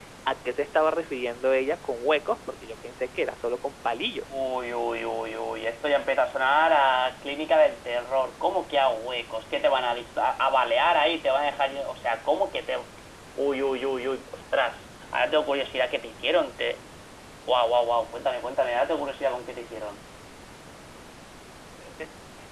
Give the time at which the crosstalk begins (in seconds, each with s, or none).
none